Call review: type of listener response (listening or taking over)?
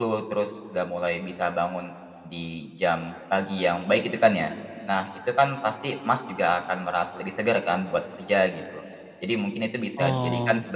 listening